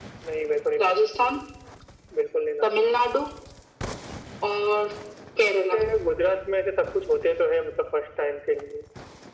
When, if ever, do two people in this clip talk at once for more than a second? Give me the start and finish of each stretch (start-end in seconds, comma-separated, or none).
none